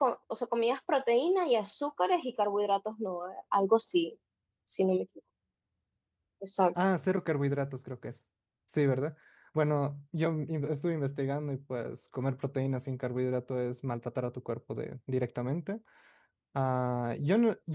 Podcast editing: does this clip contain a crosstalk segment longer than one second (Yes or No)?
No